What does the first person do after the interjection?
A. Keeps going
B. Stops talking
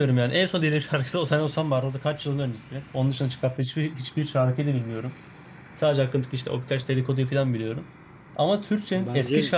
A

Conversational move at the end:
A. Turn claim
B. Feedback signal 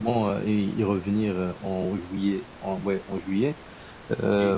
B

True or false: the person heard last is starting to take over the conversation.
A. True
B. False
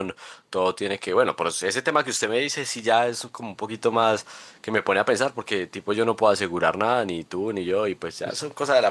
B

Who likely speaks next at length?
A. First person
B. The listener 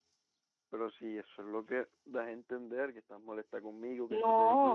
B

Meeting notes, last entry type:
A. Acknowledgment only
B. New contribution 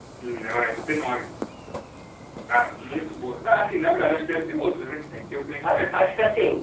B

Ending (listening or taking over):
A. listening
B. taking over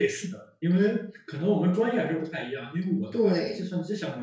A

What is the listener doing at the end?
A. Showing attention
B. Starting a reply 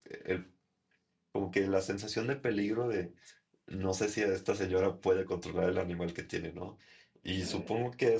A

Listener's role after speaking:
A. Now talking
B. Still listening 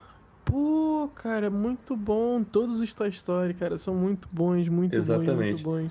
A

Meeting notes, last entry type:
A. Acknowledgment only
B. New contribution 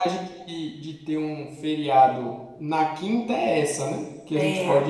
A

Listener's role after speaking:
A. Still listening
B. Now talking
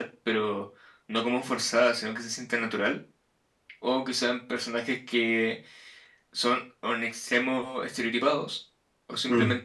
A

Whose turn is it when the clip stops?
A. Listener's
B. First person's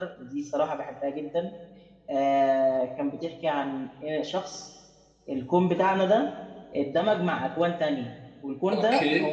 B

